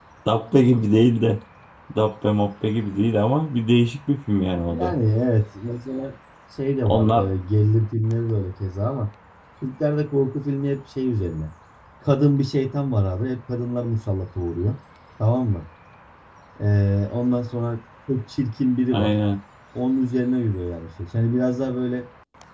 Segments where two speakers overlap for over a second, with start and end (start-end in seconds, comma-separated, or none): none